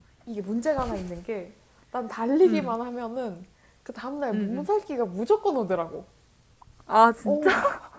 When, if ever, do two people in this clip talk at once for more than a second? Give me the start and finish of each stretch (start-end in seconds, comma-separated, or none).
none